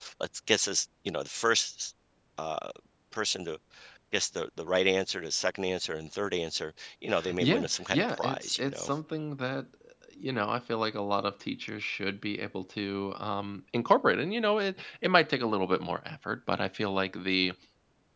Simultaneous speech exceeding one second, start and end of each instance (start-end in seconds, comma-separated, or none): 7.4-8.9